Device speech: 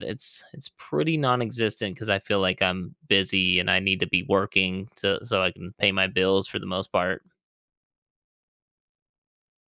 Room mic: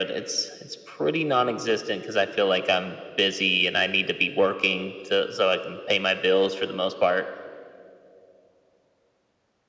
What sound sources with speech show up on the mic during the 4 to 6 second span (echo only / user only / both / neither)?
echo only